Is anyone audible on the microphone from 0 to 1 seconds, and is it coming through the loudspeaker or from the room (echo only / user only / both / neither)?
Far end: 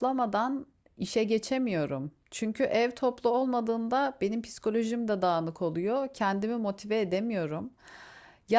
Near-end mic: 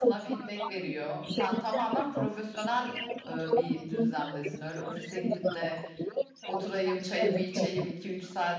both